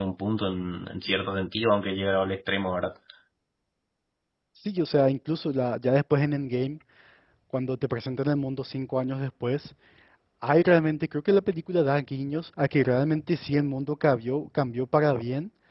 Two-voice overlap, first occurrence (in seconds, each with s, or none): none